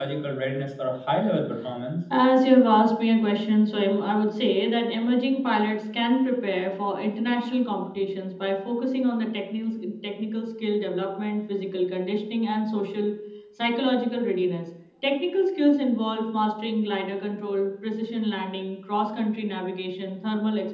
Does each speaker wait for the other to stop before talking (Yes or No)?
Yes